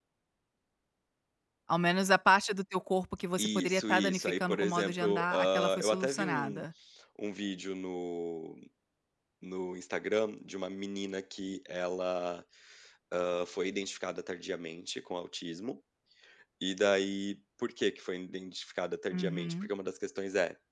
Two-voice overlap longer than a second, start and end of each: 3.4-6.7

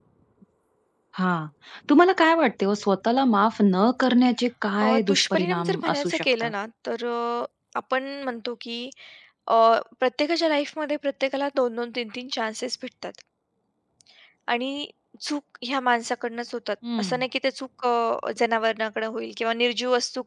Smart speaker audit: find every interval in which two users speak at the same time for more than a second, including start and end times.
4.8-6.5

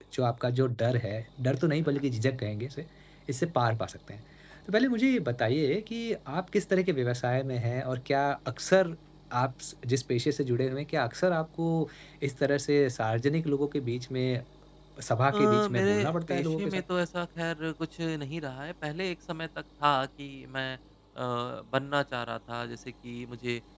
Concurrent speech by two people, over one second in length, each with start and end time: 15.3-16.8

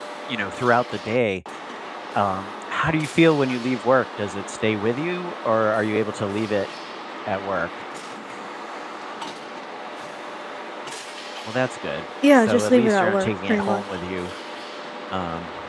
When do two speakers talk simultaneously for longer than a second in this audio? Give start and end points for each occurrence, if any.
12.3-13.8

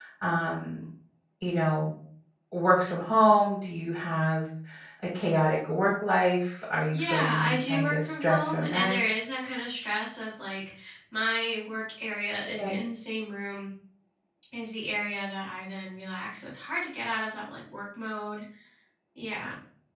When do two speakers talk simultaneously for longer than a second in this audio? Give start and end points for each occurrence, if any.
6.9-8.9

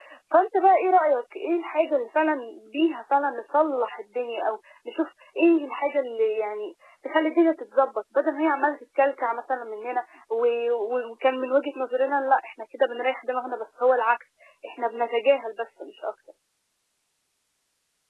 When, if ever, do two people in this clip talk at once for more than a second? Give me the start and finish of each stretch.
none

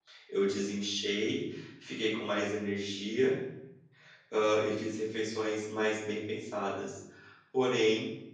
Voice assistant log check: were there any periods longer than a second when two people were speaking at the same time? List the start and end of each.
none

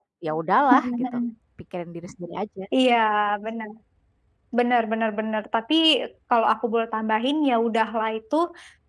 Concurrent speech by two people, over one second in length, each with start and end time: none

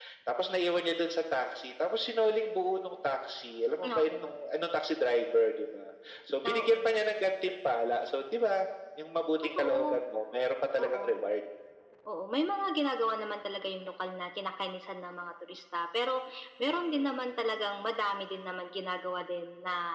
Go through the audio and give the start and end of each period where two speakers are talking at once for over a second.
none

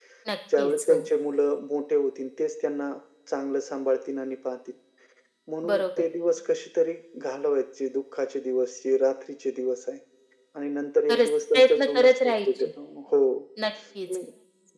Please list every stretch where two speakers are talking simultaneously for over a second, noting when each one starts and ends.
11.1-12.7

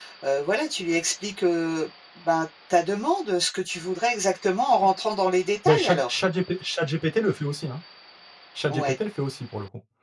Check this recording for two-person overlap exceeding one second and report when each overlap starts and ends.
none

